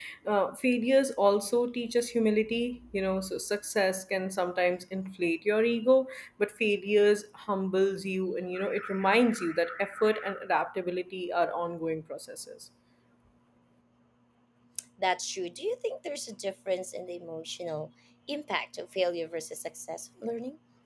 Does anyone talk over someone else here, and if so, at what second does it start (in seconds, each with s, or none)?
none